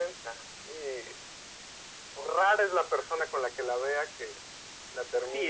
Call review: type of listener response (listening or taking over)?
taking over